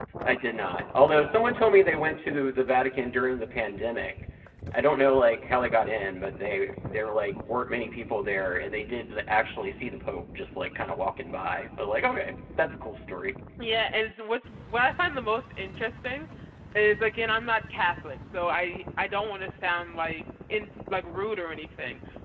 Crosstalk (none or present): none